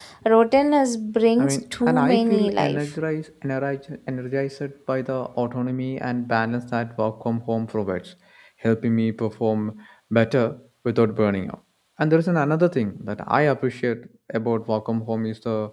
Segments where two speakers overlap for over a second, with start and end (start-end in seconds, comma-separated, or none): 1.4-2.8